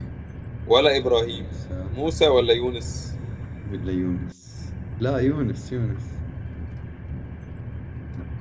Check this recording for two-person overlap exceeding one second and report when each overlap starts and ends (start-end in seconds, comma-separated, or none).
none